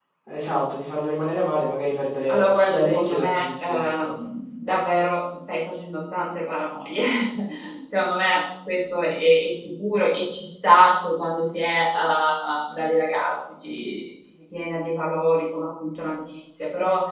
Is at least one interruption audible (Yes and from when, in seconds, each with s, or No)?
Yes, from 2.3 s